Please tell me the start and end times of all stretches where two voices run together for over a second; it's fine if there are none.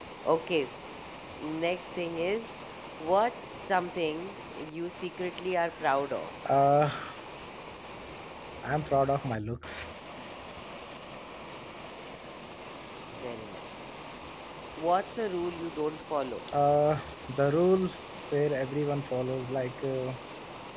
none

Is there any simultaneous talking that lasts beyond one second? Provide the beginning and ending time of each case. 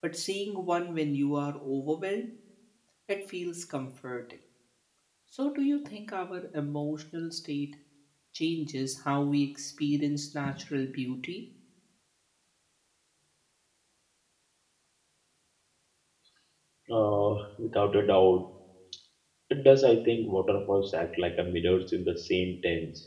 none

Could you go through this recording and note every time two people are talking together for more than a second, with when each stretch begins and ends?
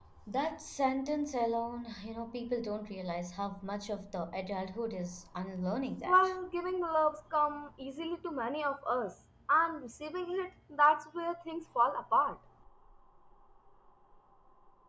none

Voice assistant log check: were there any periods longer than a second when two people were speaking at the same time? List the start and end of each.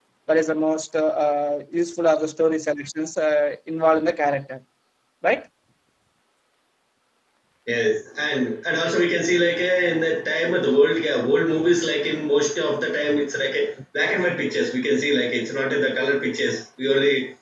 none

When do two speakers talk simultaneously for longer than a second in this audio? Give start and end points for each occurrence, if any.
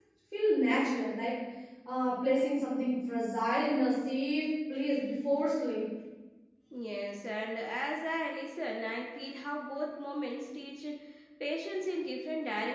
none

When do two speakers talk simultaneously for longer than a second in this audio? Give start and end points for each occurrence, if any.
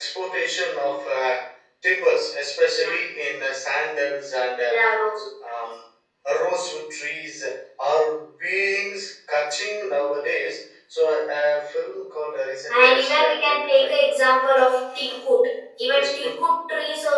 12.7-13.9

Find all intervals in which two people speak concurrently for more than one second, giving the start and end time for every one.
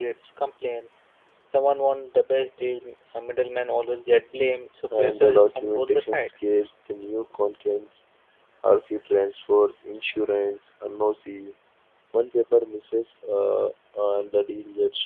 4.9-6.3

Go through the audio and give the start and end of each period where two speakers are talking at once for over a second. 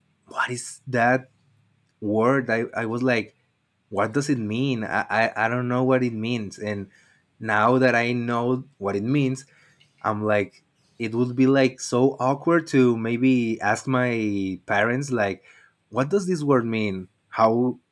none

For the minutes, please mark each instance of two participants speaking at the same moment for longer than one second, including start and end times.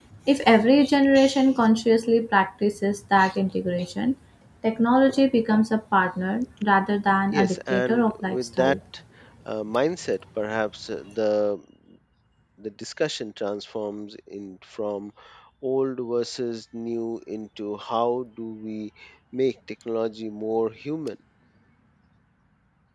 7.3-8.8

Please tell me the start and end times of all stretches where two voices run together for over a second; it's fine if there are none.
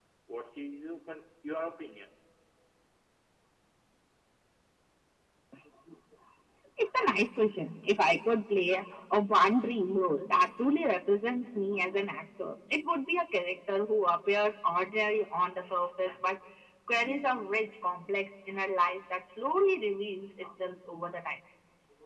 none

